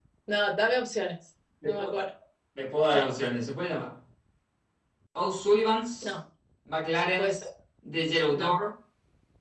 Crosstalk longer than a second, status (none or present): none